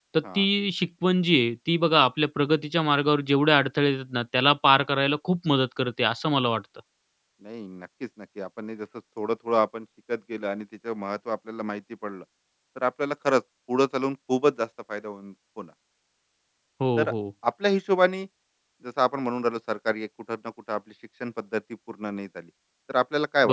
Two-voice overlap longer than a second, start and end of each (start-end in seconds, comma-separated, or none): none